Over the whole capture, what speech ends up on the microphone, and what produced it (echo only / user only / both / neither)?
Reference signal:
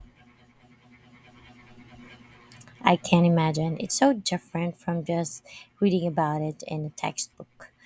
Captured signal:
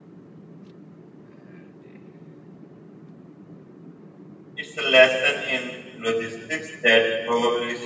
user only